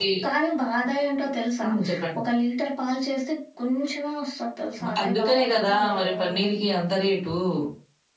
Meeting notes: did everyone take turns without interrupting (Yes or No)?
No